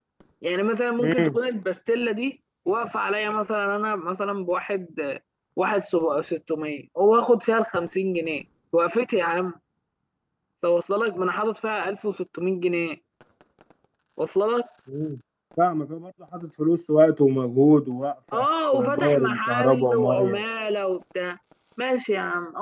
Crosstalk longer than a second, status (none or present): present